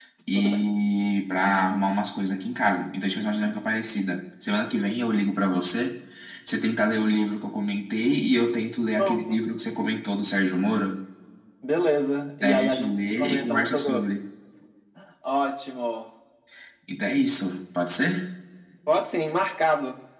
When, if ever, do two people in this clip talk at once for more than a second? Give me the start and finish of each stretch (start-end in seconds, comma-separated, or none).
12.4-14.0